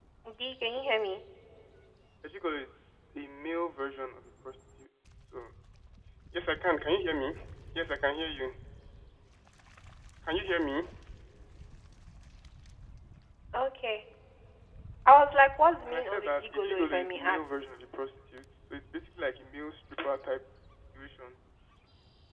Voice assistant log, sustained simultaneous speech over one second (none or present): present